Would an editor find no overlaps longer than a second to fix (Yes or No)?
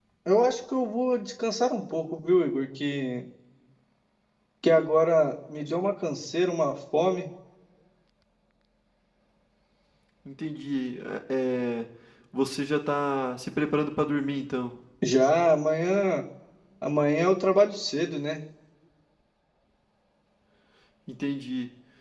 Yes